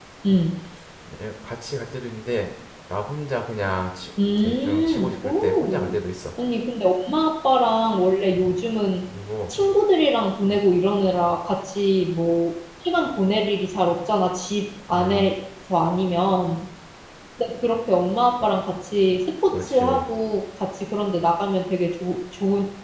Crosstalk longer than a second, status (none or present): present